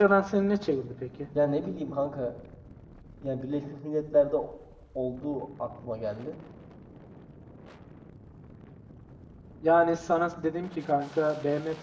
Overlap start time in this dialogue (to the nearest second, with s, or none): none